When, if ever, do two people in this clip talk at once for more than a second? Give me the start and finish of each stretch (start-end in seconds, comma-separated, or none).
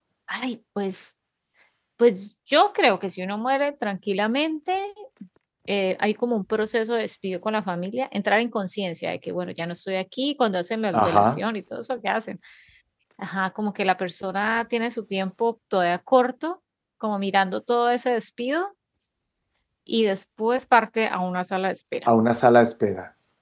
none